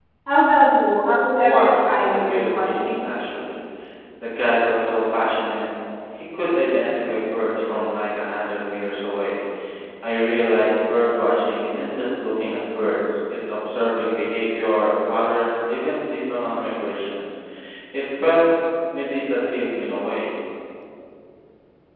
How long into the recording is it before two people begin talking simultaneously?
1 s

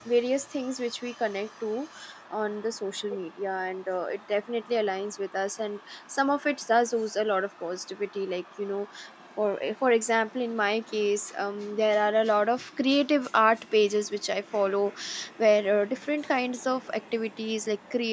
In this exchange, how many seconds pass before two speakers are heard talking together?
none

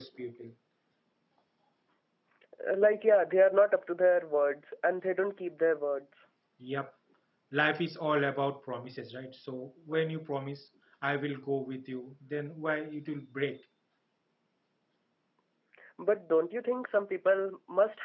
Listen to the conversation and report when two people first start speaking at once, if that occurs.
none

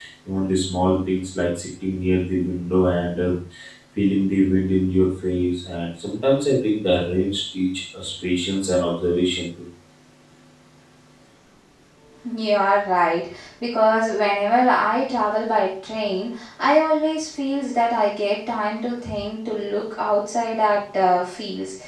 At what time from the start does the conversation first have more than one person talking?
none

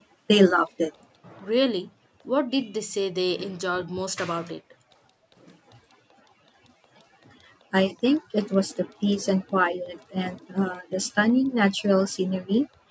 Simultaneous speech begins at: none

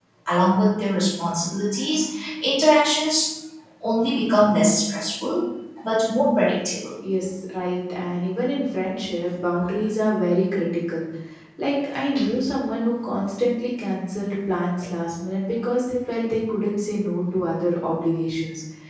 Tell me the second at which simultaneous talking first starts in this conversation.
none

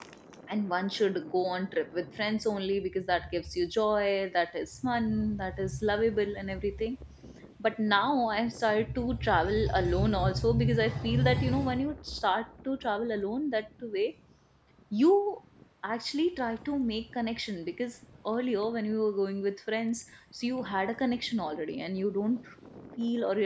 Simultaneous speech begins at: none

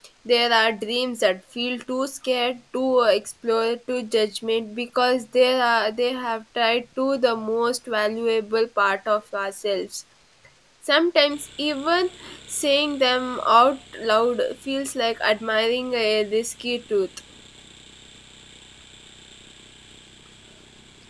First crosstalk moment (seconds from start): none

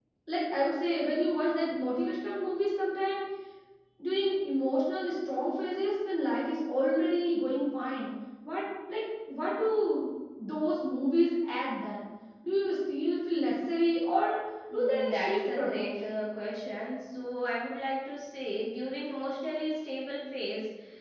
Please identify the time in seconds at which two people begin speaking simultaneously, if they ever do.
15 s

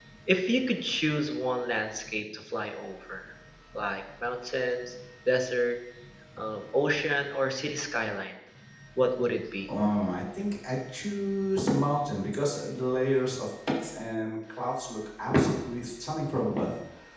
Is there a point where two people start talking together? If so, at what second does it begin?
none

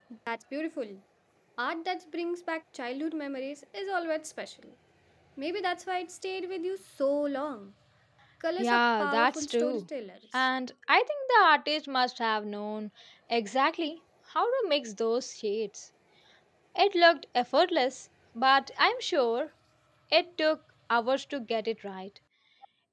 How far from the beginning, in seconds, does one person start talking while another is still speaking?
9 s

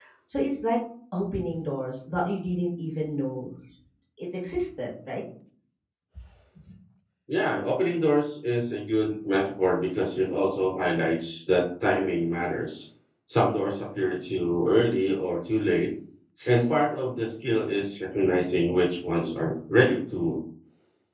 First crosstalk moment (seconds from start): none

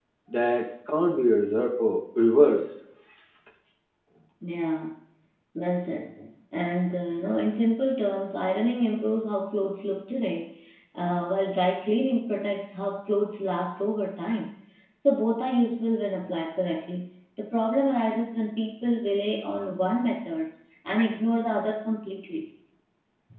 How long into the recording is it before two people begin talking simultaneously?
none

